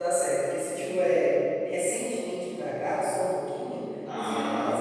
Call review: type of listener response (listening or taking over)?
taking over